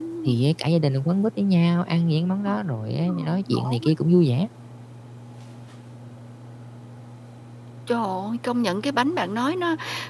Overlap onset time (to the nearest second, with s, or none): 2 s